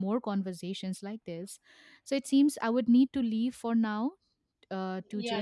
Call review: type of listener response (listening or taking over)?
taking over